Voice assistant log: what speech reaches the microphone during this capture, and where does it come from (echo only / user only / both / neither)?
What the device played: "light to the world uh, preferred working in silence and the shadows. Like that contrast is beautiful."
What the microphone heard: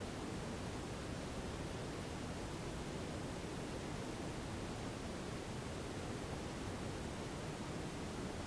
neither